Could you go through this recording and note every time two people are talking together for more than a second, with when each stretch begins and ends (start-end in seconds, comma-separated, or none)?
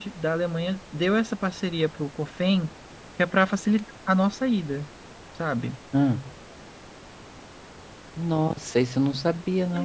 none